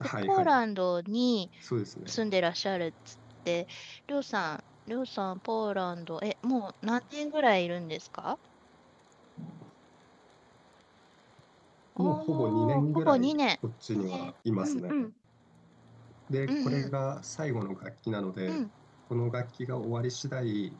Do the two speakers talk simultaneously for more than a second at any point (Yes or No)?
Yes